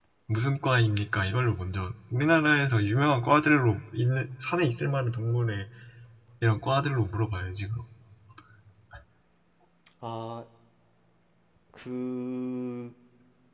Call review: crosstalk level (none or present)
none